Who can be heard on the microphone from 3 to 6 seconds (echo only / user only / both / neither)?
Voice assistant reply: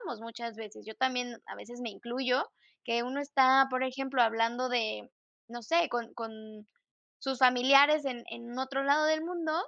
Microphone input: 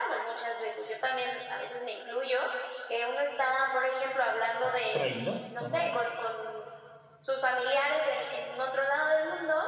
both